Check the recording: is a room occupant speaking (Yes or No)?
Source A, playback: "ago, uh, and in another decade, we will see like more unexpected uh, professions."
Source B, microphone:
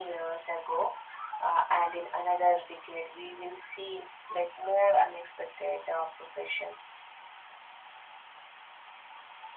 No